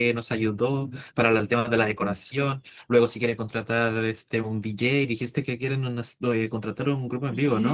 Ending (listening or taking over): taking over